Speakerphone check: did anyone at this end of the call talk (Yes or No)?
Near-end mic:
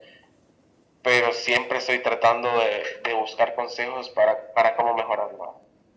No